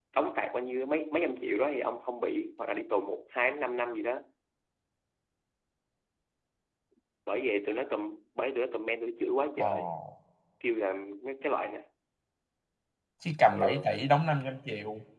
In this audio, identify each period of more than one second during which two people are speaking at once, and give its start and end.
none

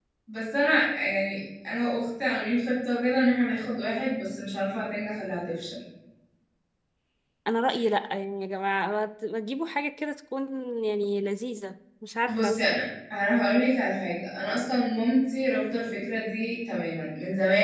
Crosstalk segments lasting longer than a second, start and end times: none

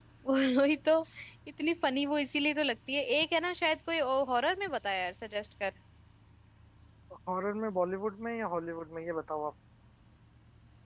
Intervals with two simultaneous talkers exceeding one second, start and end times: none

